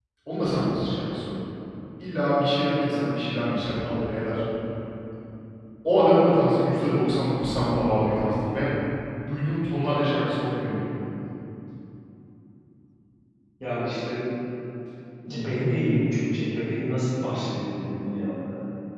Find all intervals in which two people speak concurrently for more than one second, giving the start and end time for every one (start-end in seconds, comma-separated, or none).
none